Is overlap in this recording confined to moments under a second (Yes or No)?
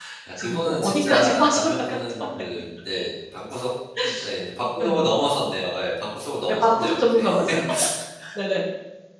No